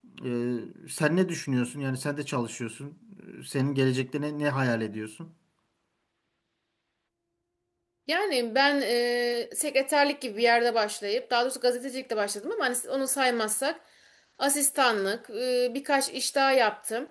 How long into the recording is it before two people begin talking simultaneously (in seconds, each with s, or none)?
none